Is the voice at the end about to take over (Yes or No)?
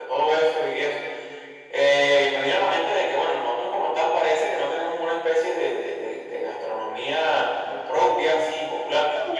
No